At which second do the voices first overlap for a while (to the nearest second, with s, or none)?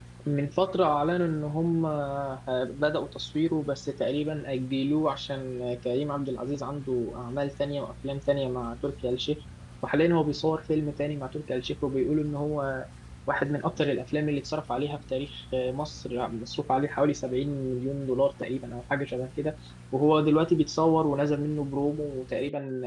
none